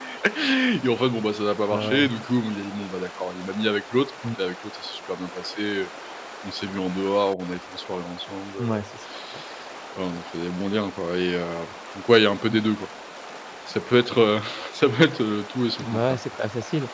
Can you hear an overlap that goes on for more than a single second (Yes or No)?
No